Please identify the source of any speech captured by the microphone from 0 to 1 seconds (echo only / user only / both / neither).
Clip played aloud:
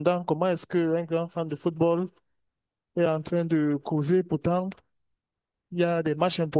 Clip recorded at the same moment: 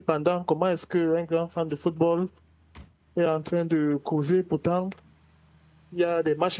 echo only